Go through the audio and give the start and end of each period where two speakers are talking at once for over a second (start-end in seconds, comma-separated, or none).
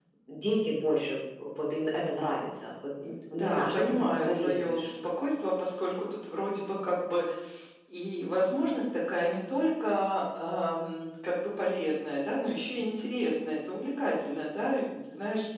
3.3-4.8